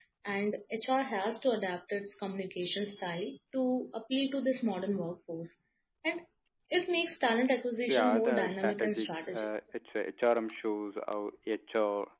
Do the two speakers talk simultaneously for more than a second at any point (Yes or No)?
Yes